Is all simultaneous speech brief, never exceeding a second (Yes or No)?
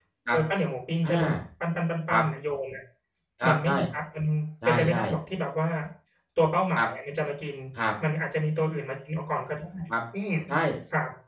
Yes